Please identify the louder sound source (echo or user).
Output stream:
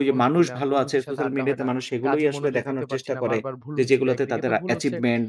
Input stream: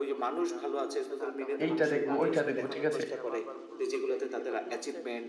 user